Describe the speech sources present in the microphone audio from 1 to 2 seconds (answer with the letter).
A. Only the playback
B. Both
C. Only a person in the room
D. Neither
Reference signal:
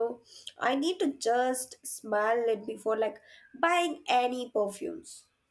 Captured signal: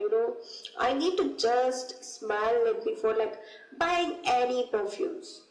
A